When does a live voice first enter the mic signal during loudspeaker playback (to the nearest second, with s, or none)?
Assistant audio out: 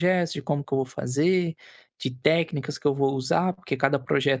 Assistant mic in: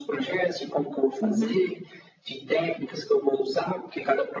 1 s